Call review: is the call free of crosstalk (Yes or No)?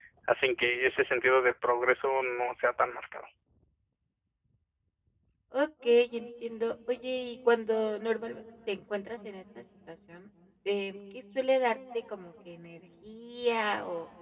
Yes